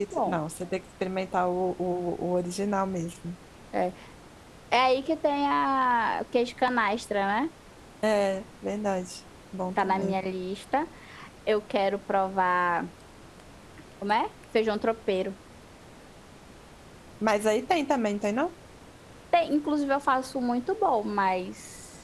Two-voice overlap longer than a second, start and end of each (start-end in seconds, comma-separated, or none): none